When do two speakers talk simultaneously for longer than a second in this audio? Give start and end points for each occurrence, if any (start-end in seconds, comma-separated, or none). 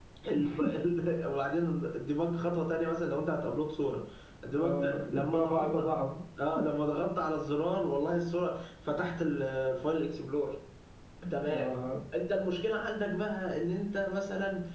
4.6-6.0